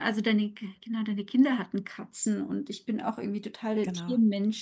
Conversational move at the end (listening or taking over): listening